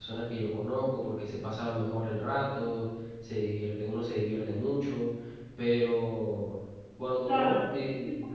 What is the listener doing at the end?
taking over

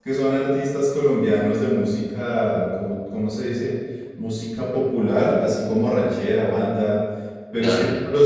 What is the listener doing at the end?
listening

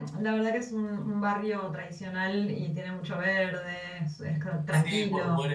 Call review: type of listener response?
taking over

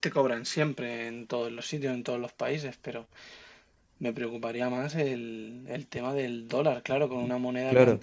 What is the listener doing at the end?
taking over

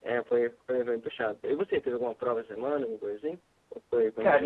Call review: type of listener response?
taking over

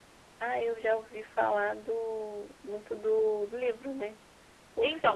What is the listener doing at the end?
taking over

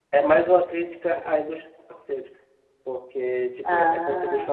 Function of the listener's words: listening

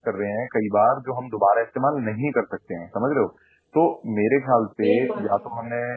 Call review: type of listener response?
listening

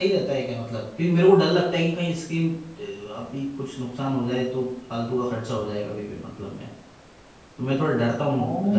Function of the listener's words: taking over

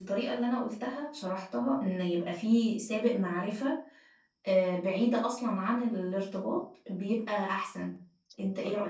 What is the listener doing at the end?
taking over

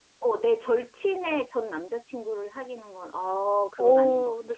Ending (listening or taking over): taking over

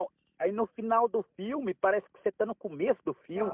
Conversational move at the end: taking over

